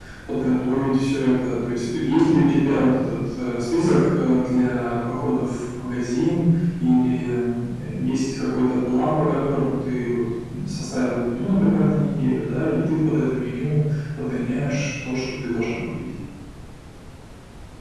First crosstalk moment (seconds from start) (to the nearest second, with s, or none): none